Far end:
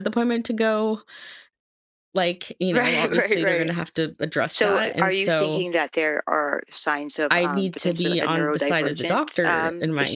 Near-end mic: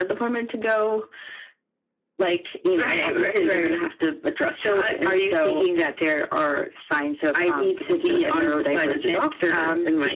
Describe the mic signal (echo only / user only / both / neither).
echo only